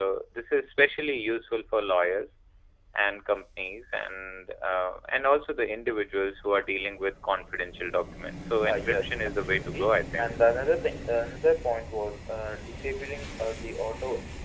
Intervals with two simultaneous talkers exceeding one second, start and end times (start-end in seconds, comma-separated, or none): 8.7-10.2